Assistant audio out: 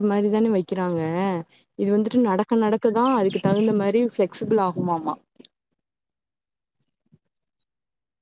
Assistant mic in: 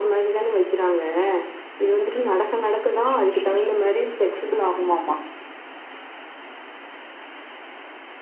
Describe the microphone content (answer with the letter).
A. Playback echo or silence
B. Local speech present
A